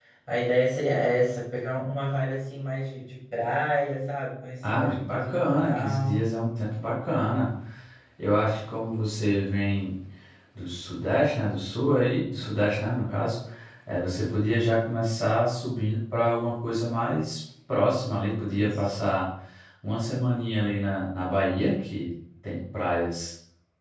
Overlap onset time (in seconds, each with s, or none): 4.7 s